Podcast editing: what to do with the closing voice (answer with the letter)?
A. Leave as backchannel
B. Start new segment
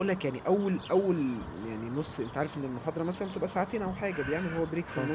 A